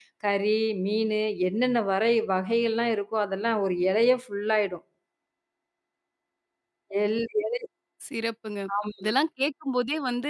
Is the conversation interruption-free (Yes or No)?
Yes